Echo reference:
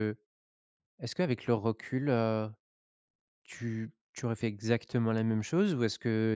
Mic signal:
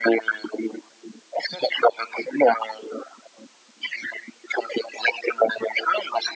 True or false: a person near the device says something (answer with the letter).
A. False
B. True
A